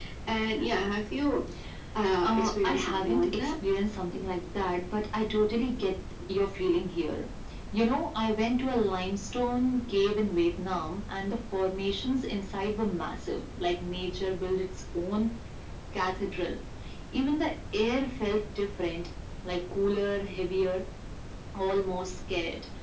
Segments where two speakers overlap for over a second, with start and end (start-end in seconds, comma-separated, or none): 2.2-3.5